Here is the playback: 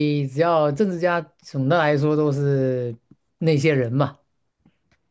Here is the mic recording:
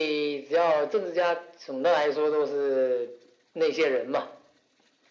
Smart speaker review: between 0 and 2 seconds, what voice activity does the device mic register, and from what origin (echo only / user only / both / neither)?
echo only